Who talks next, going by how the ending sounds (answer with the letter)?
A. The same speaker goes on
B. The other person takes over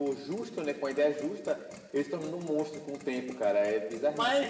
B